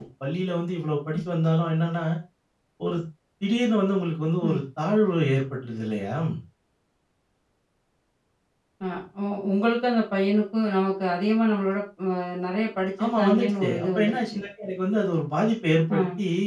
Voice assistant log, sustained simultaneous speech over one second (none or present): present